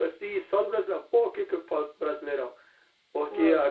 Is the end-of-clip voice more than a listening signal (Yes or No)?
No